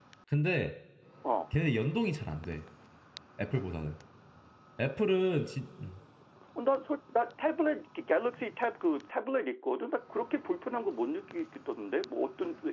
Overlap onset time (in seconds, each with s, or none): none